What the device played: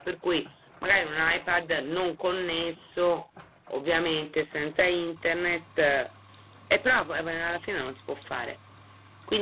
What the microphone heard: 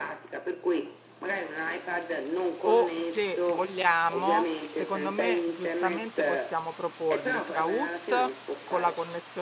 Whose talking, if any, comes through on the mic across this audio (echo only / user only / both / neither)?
both